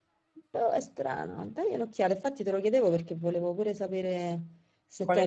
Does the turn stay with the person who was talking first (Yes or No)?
No